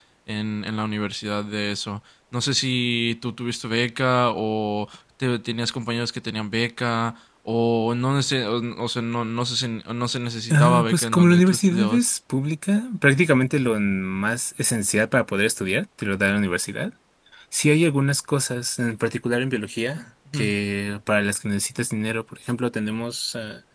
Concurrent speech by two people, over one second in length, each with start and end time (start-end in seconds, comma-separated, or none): 10.5-12.1